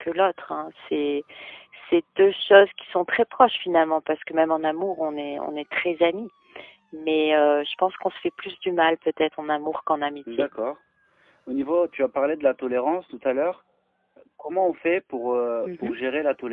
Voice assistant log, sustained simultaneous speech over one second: none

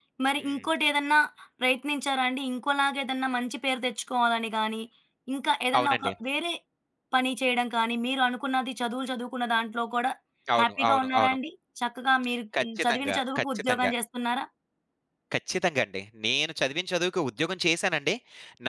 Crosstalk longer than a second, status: present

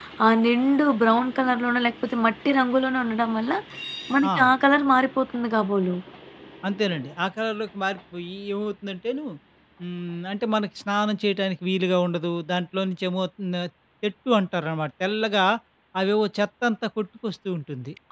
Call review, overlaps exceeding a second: none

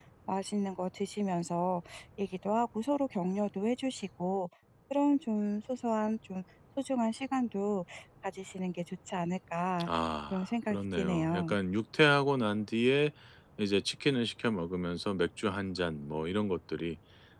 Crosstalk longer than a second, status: present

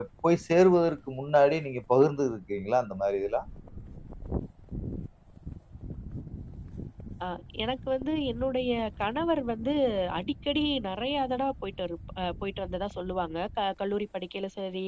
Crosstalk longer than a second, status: none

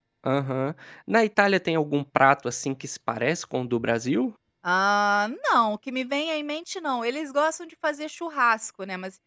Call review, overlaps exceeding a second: none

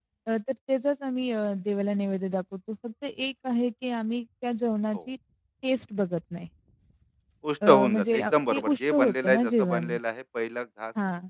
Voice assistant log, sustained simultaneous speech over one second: present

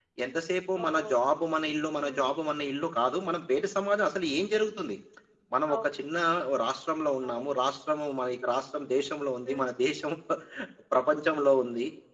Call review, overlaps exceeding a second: none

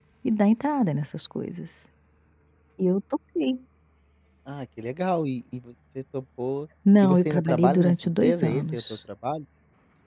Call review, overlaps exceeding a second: present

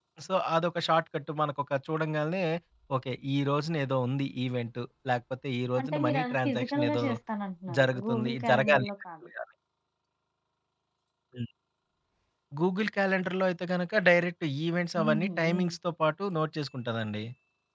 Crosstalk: present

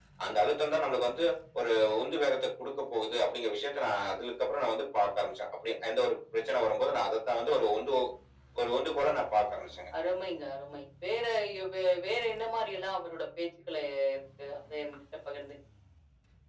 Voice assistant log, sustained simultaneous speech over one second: none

